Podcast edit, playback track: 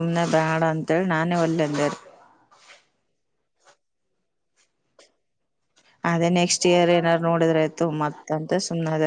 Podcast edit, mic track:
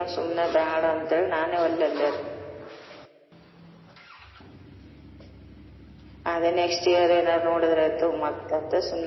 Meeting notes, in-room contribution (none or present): none